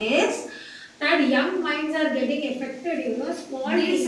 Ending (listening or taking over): taking over